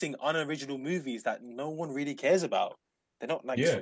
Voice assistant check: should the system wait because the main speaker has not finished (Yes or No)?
No